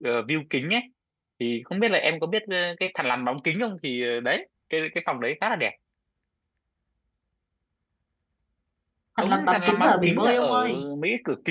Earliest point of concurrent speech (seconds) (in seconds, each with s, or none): 9.2 s